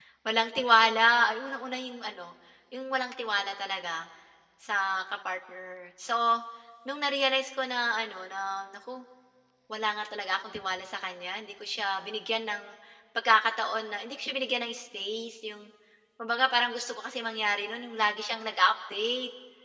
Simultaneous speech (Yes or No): No